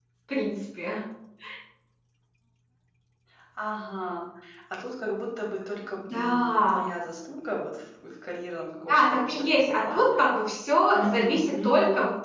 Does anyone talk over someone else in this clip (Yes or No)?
Yes